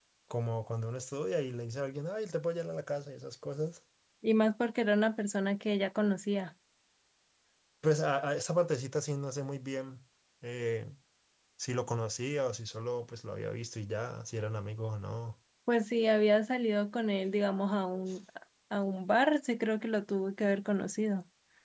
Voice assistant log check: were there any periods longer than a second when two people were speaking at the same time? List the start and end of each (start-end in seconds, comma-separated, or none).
none